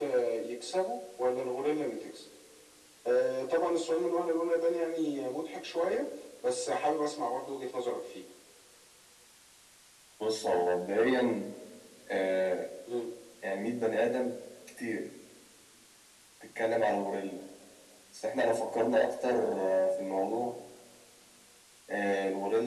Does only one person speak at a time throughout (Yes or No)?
Yes